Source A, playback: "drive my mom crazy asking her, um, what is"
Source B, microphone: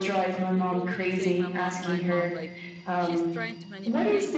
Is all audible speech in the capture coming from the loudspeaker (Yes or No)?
No